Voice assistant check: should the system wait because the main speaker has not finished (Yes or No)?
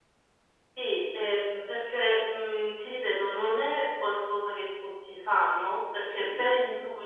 Yes